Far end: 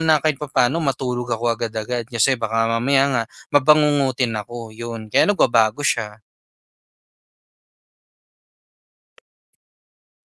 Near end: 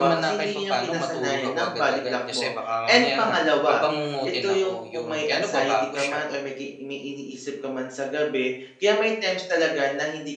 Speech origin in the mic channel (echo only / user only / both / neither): both